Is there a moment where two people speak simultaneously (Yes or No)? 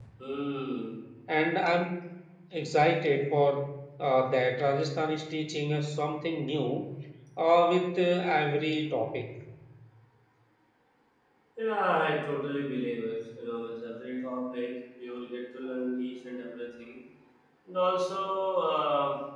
No